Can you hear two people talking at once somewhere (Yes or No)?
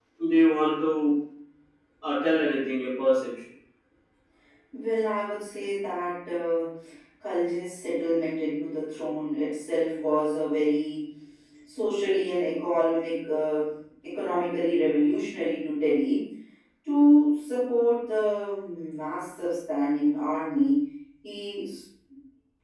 No